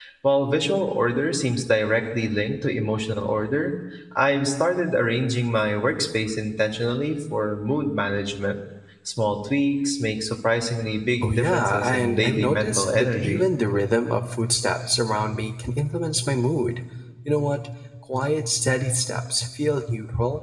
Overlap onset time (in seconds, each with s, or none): 11.2 s